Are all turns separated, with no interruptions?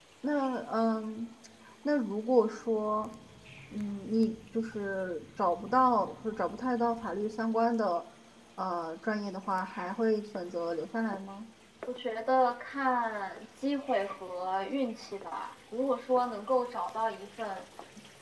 Yes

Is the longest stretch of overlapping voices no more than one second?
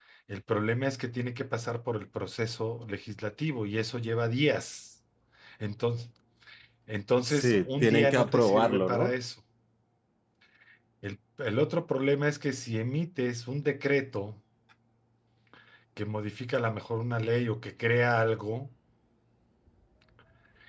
No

